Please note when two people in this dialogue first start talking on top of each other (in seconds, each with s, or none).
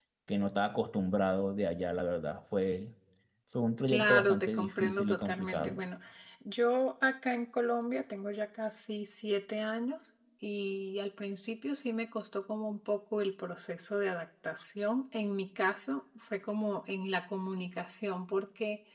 3.9 s